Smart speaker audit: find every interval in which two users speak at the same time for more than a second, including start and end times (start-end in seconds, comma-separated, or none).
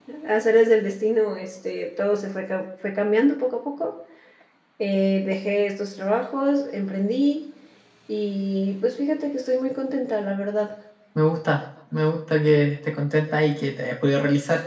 none